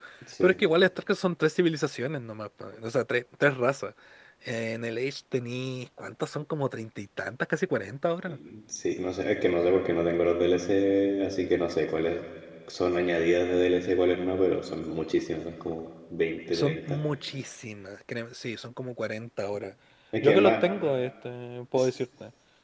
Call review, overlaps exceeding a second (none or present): none